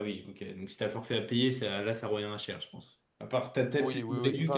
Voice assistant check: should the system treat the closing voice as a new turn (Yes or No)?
Yes